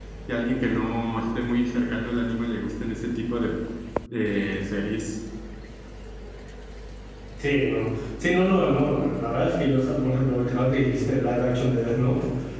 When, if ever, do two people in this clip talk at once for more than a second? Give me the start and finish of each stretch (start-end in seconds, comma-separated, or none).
none